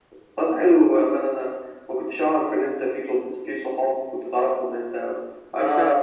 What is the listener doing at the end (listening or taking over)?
listening